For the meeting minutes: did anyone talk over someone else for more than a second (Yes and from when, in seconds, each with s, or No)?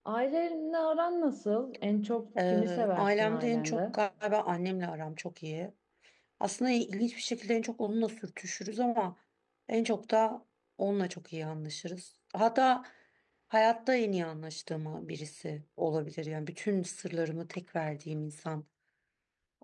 Yes, from 2.4 s